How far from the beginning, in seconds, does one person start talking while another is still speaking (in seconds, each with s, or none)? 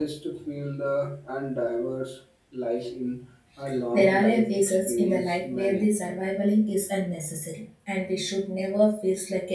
3.9 s